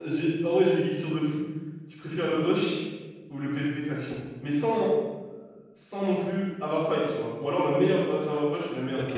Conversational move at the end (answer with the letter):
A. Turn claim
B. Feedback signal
A